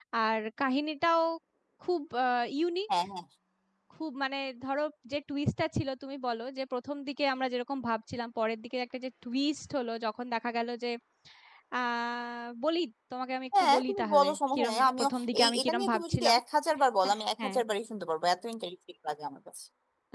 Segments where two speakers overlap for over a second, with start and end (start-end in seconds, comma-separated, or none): 13.6-16.4